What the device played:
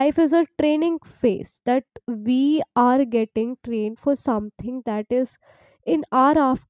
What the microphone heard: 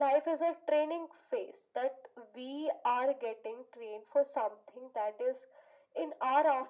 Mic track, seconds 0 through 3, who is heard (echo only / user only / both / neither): echo only